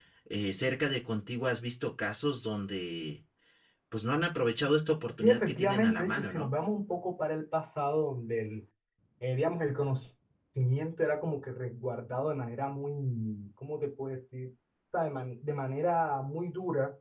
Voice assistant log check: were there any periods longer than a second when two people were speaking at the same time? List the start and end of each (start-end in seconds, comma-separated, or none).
5.2-6.5